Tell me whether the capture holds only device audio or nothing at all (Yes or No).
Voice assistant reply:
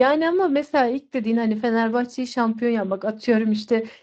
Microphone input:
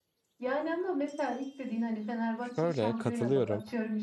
No